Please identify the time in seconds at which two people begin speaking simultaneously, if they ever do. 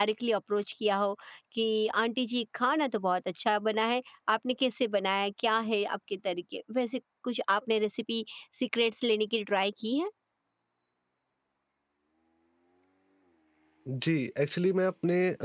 none

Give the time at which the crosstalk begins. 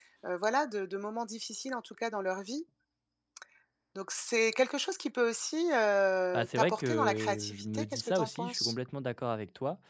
6 s

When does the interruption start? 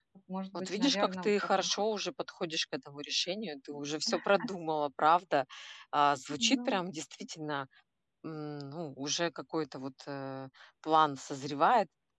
1 s

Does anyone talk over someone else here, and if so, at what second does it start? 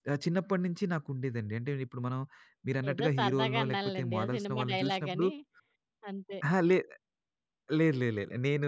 3 s

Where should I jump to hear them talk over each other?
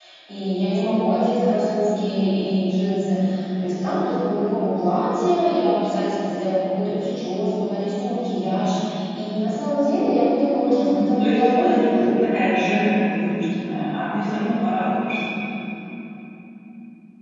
11 s

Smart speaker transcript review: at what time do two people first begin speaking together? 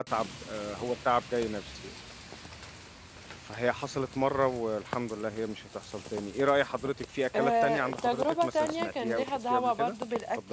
7 s

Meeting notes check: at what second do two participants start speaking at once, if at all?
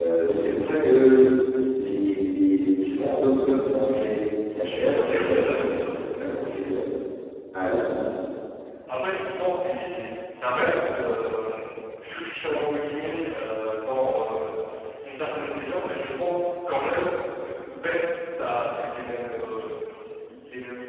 5 s

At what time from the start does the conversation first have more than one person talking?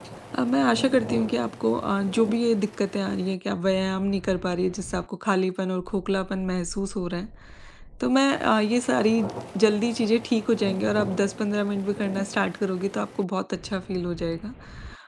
none

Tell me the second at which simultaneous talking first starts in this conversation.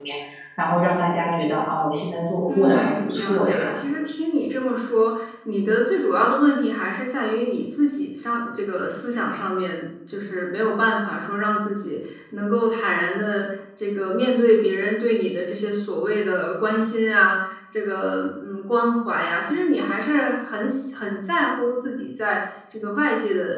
2 s

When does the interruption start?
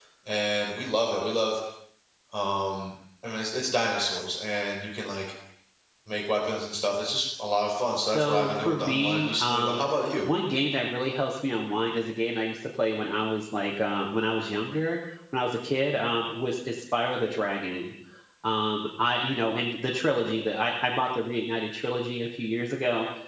8 s

